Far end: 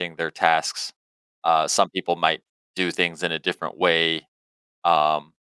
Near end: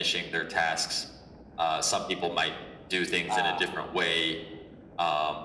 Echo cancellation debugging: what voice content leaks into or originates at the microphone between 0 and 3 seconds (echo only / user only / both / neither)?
echo only